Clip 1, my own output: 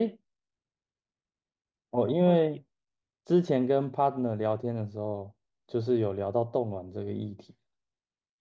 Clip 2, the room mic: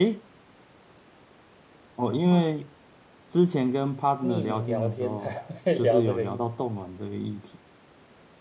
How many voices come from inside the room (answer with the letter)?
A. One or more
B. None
A